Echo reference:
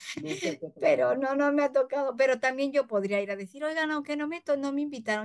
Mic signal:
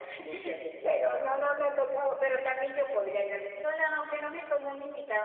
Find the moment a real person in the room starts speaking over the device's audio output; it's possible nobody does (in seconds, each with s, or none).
none